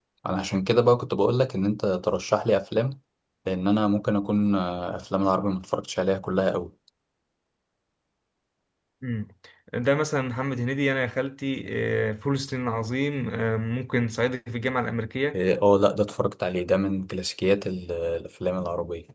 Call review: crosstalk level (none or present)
none